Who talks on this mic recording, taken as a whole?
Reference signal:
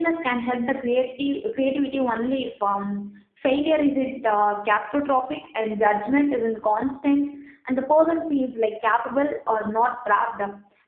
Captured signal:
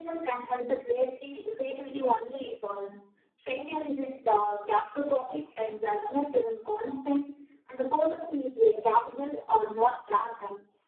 echo only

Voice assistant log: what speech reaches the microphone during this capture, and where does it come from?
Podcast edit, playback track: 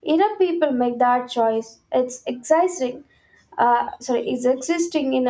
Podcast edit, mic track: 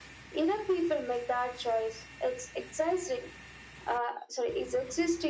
echo only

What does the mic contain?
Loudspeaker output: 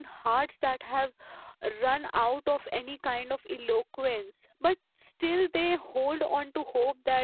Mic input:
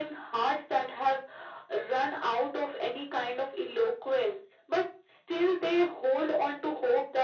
echo only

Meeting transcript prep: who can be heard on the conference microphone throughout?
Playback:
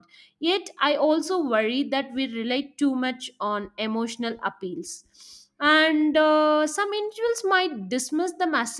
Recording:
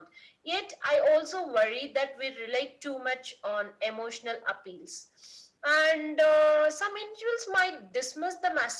echo only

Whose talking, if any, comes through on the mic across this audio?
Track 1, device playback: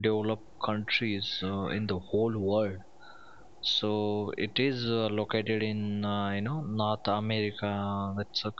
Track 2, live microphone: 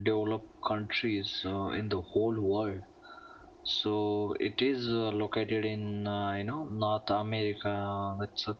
echo only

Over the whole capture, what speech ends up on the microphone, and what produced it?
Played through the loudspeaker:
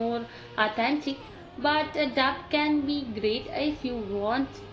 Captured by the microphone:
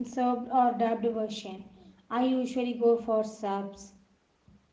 user only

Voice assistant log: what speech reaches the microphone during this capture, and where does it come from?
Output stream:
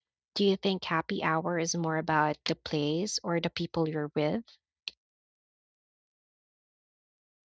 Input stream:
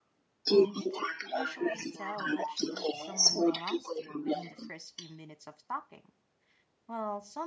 both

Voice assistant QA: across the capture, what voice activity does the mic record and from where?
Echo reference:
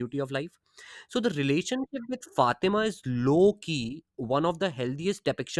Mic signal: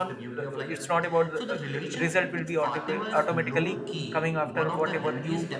both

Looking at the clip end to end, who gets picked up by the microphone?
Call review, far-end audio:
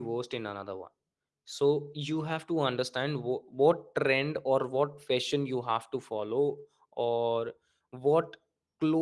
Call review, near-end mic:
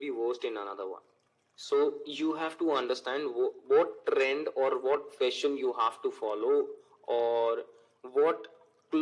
echo only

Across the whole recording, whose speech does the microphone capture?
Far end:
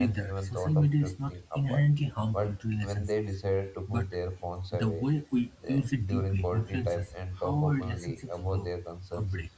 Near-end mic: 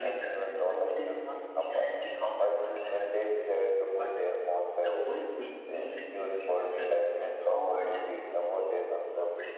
echo only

